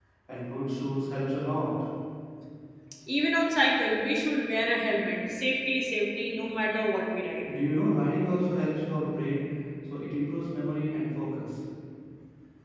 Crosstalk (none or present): none